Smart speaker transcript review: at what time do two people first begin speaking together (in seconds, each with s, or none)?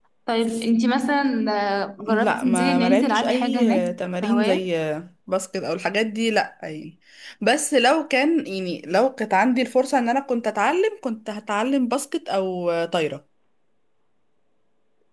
2.1 s